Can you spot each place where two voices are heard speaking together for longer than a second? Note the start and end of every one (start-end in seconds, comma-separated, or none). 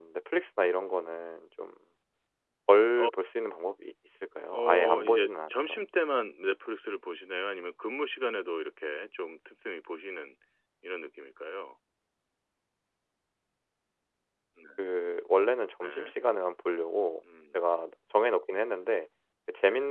4.5-5.8